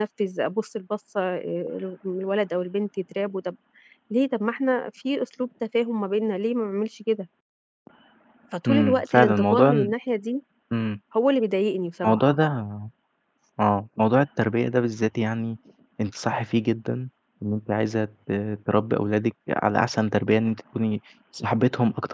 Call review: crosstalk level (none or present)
present